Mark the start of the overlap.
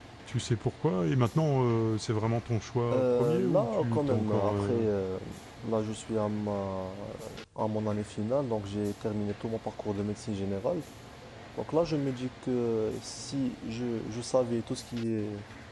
2.9 s

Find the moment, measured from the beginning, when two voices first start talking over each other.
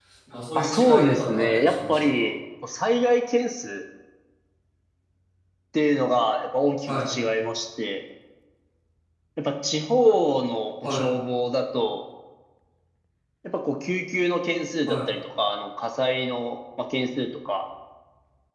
0.6 s

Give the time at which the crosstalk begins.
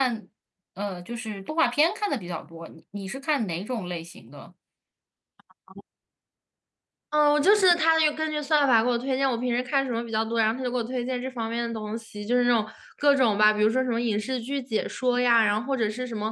none

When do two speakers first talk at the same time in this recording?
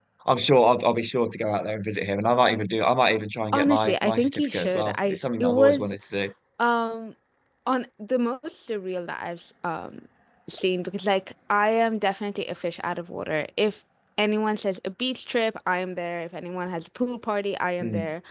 3.5 s

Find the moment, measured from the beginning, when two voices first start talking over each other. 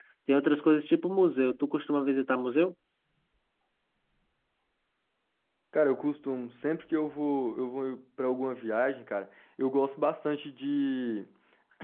none

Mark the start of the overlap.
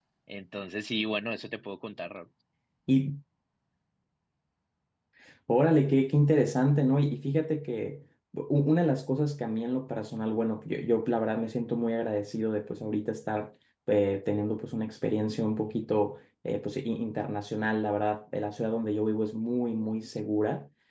none

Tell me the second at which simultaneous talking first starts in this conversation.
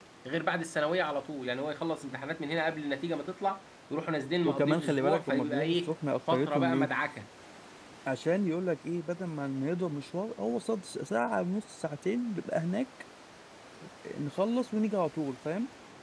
4.4 s

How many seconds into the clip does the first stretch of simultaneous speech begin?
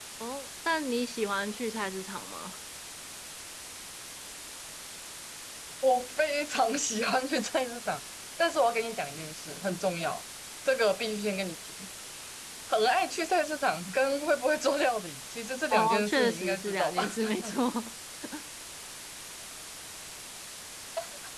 15.7 s

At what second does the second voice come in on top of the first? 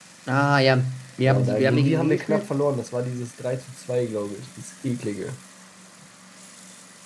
1.2 s

